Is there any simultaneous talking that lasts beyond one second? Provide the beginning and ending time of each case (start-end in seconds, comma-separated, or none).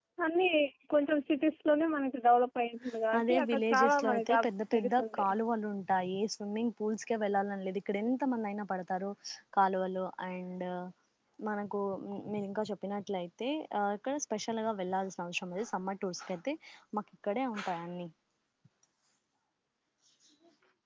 3.2-5.3